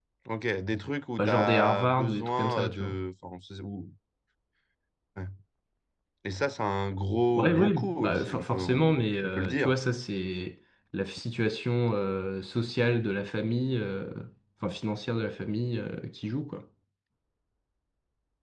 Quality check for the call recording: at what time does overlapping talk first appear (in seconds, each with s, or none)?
1.2 s